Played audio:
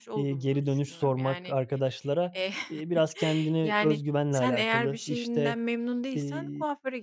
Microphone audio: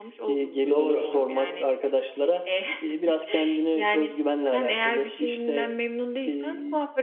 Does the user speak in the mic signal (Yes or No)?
Yes